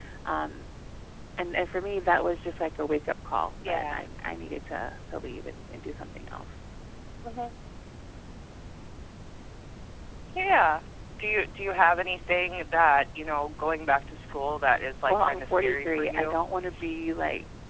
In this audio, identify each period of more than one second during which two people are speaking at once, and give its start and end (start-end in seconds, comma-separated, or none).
15.1-16.3